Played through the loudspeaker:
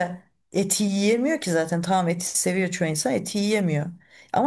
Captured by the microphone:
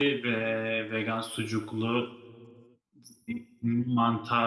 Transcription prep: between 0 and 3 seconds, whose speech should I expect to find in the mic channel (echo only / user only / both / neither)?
user only